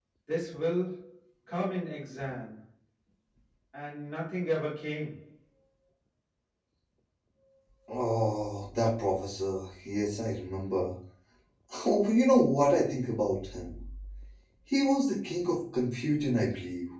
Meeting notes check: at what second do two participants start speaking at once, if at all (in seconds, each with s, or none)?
none